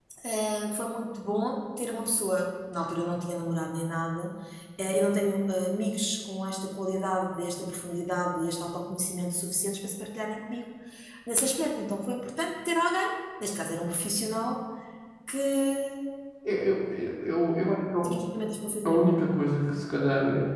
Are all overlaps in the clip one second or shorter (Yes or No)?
Yes